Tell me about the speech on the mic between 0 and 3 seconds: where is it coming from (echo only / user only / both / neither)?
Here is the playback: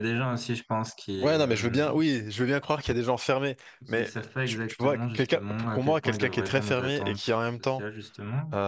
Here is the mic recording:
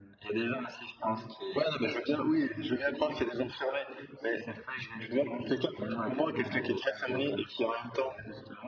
echo only